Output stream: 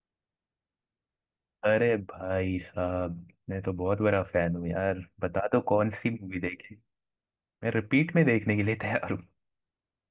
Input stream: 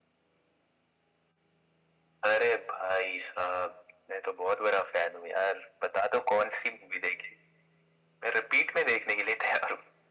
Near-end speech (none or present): none